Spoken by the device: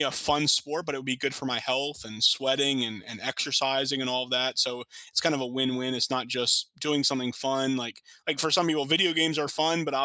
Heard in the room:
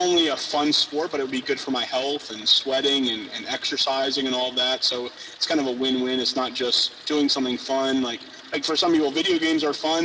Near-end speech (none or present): none